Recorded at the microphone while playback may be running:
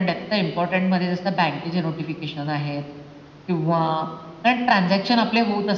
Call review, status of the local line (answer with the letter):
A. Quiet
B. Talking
A